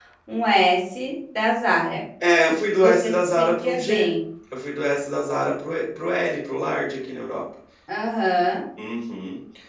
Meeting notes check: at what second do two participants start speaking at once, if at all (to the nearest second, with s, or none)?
3 s